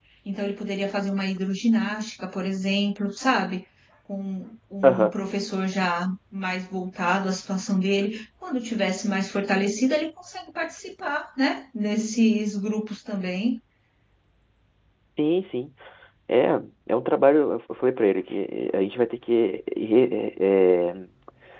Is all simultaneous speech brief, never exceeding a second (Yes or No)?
Yes